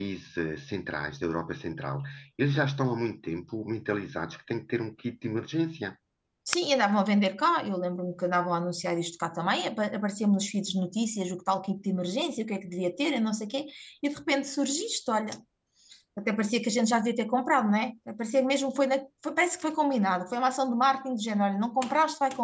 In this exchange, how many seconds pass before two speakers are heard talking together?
none

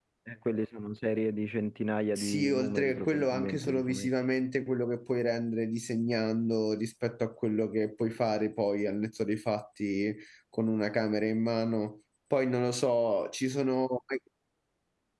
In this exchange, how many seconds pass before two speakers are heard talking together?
2 s

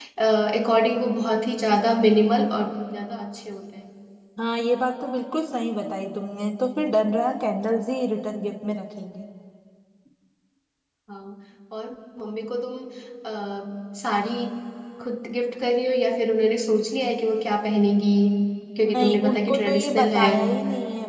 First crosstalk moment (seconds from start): 19 s

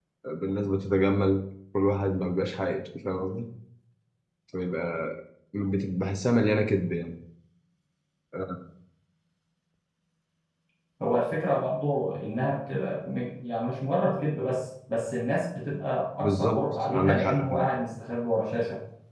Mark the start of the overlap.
16 s

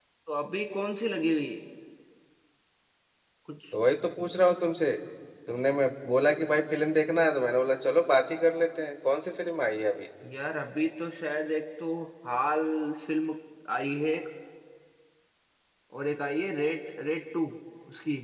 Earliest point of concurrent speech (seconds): none

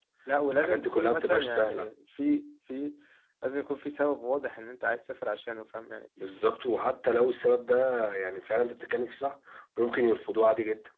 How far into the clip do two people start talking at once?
1 s

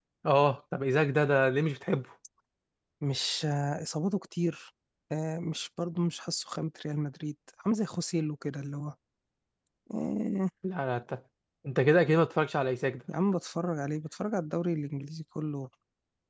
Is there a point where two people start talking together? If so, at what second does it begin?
none

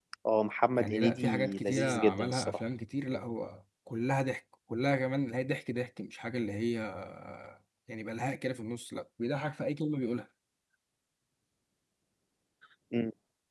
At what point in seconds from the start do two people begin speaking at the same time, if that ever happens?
1 s

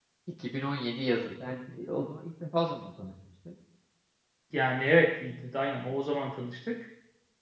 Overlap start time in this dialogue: none

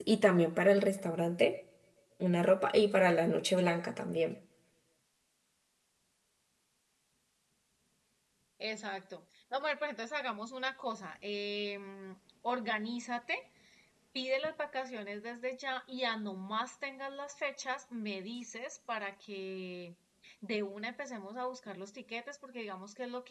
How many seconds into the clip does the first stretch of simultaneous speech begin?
none

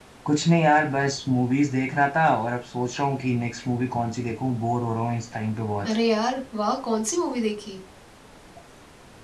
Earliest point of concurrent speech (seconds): none

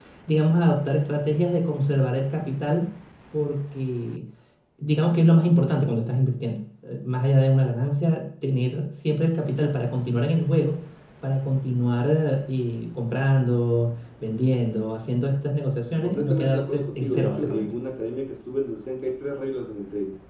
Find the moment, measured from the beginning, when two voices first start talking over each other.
16 s

